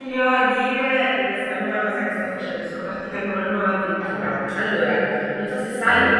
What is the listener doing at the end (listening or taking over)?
listening